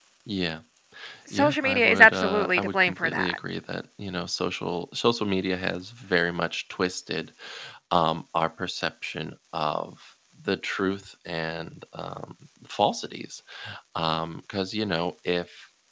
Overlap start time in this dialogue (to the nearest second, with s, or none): 1 s